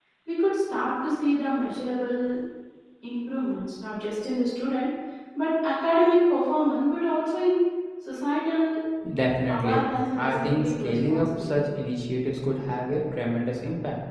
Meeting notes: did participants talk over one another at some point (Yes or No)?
Yes